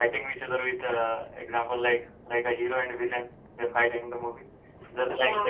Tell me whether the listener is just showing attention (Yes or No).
Yes